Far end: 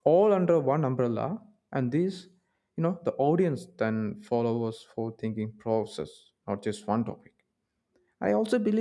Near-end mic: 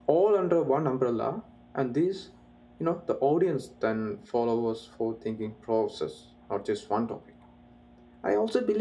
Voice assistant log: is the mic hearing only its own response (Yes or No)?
Yes